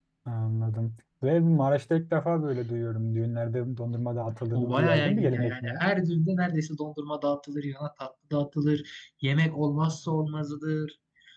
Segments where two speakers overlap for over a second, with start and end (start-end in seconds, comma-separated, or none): 4.5-5.8